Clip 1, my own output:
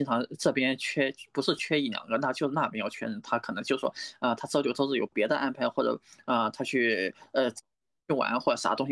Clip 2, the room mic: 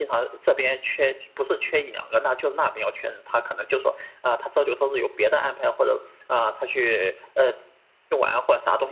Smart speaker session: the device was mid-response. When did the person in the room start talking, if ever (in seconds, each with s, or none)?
none